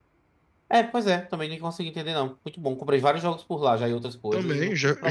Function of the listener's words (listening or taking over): taking over